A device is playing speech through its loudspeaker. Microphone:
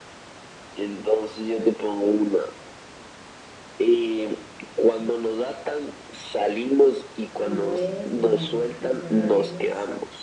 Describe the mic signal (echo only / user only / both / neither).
both